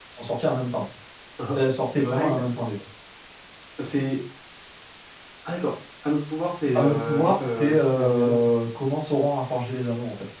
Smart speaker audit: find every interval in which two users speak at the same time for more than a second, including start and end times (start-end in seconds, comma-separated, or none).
6.7-8.4